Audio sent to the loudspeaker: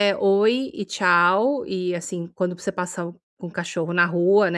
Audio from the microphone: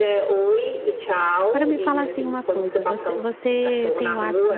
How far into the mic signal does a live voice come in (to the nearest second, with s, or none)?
1 s